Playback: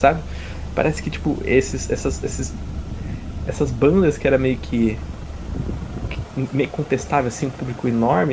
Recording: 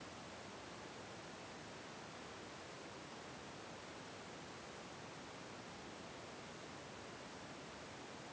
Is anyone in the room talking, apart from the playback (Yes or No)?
No